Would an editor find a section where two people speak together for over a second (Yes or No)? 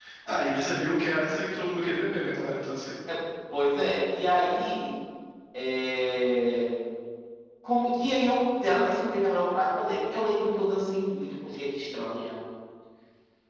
No